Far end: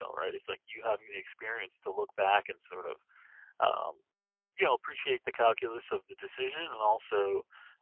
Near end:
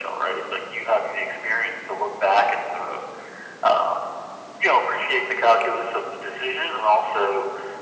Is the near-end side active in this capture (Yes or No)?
No